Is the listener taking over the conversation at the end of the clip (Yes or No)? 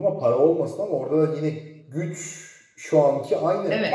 No